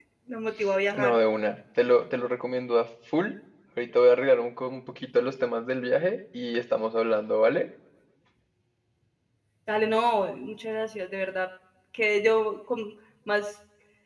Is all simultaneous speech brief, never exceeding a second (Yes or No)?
Yes